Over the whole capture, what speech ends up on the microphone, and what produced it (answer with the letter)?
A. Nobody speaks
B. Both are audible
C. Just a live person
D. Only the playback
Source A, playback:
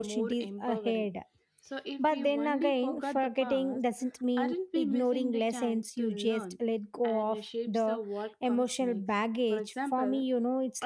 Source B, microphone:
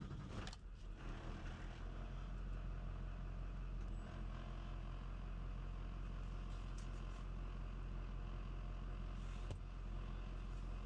A